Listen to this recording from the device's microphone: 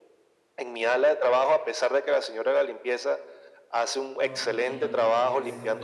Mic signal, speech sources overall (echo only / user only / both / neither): both